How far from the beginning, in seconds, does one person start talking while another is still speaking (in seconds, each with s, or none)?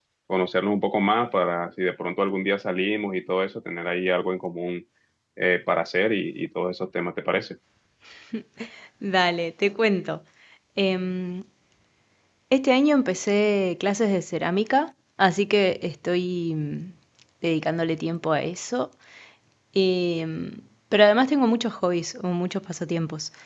none